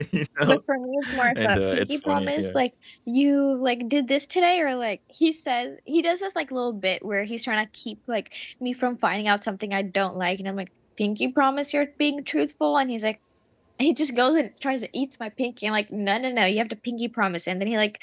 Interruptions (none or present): present